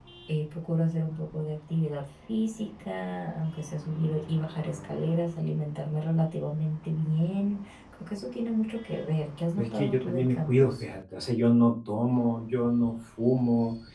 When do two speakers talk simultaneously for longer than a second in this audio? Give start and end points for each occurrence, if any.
9.6-10.8

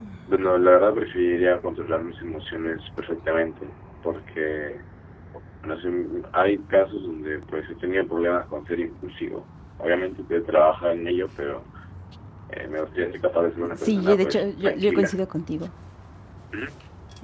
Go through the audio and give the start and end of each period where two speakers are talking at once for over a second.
13.8-15.2

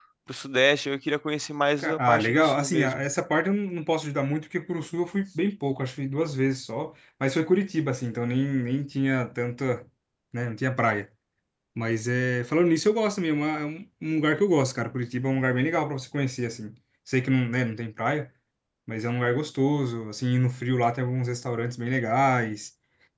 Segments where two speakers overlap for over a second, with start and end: 1.8-3.0

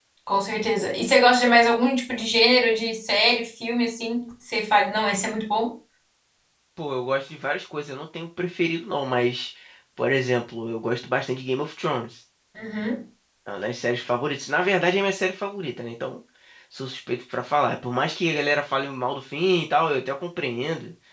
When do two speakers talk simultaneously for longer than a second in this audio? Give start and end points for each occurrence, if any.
none

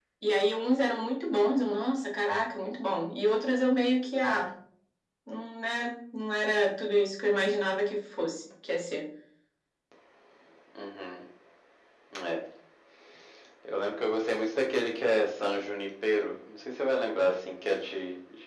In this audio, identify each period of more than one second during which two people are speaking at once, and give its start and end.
none

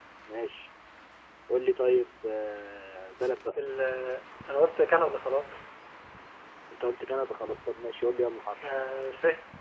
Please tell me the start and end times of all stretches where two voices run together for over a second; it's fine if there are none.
none

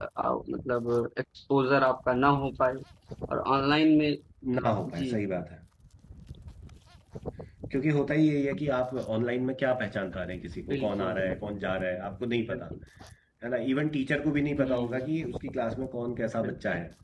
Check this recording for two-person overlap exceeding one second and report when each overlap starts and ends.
none

